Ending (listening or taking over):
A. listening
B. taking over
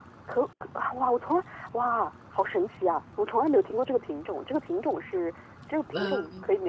A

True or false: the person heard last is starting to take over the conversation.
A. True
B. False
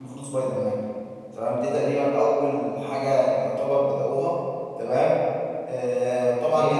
B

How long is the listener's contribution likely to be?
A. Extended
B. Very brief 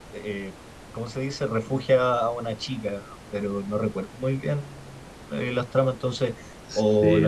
B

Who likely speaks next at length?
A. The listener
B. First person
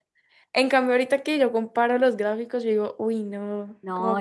A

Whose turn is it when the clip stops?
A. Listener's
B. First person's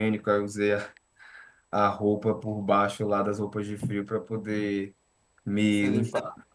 B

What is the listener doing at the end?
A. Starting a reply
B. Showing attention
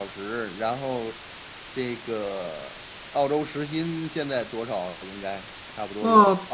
A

